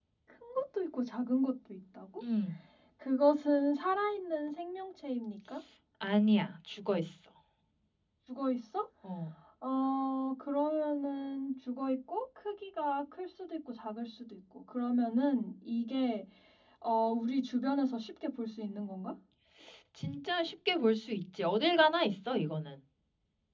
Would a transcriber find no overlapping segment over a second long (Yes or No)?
Yes